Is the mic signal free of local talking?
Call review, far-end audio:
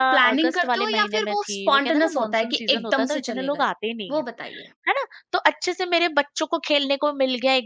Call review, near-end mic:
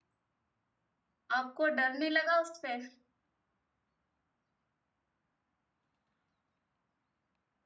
No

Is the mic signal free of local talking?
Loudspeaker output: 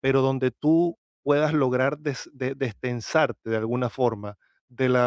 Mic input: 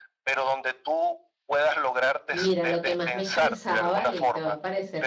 No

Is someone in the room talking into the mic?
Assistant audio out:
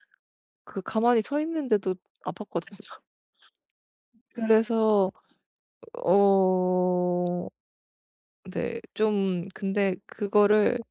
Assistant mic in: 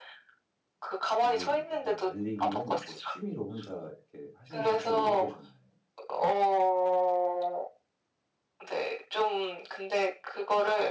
Yes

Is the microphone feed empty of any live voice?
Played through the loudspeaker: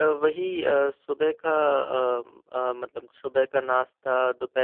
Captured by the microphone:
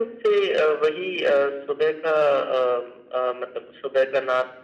Yes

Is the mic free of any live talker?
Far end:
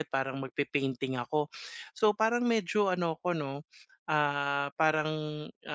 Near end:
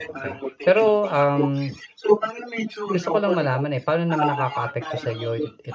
No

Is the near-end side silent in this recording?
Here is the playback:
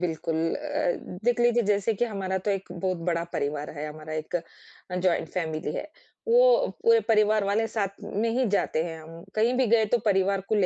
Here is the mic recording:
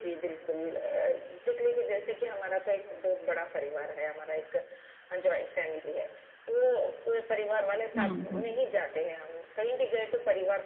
No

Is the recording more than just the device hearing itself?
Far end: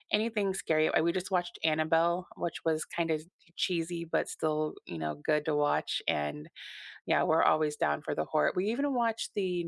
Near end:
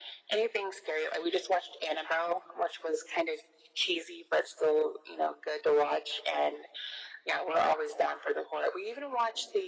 No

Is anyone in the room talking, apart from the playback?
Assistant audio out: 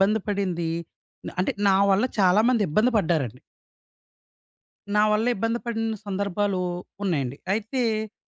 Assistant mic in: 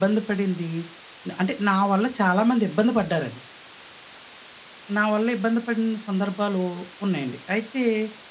No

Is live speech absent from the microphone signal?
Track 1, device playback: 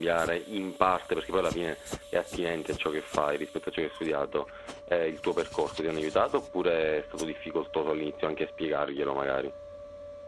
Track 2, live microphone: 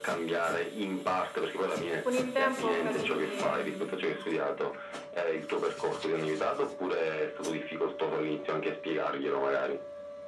No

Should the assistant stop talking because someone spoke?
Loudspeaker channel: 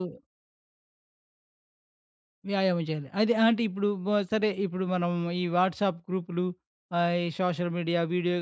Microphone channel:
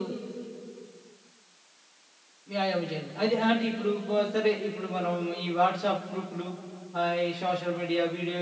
No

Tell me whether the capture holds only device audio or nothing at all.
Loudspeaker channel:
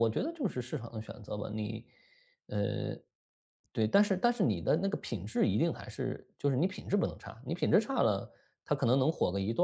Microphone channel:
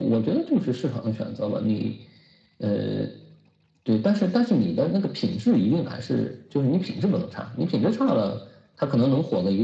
Yes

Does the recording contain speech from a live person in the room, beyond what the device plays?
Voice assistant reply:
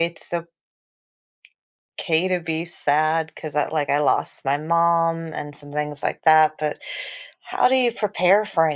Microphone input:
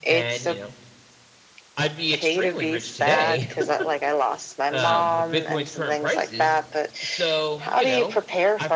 Yes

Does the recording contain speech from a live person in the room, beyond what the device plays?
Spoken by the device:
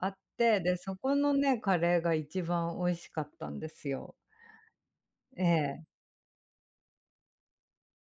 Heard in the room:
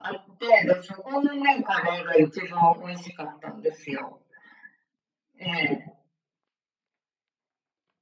No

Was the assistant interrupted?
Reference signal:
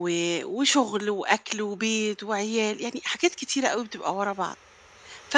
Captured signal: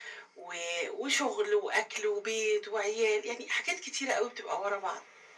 No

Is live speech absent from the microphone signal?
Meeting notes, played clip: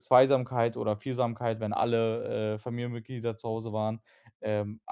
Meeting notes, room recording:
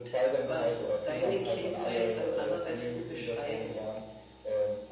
No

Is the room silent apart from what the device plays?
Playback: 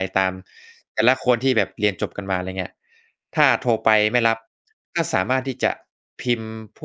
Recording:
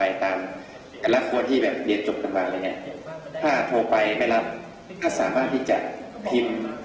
No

